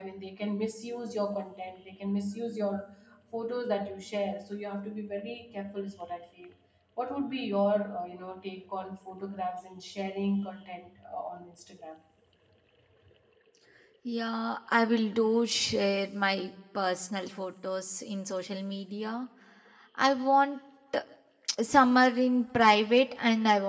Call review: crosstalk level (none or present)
none